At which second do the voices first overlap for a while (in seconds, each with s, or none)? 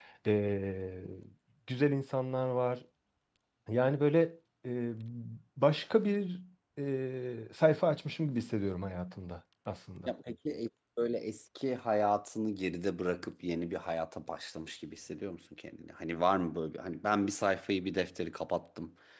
none